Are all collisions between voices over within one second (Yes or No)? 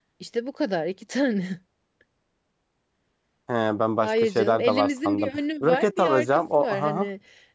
No